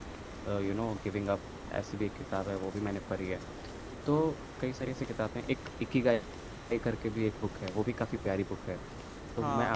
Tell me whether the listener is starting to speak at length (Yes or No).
No